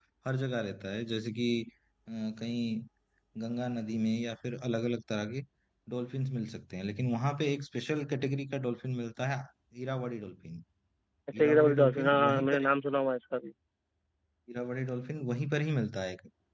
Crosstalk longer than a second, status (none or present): present